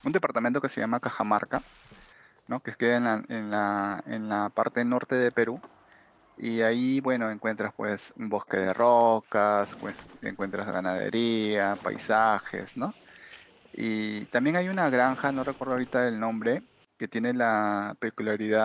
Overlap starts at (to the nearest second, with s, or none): none